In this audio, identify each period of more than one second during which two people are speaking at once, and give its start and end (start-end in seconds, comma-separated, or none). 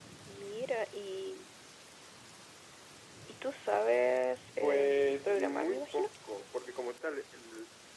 4.6-6.1